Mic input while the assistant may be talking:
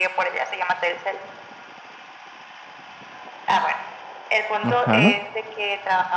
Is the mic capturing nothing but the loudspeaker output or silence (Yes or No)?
No